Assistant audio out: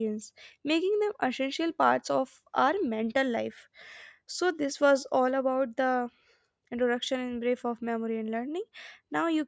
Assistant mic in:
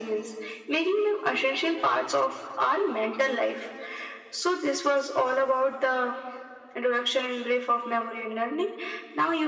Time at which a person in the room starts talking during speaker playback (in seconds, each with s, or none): none